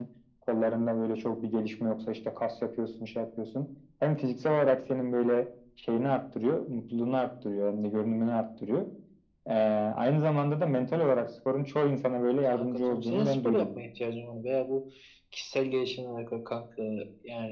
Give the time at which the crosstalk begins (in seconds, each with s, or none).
12.5 s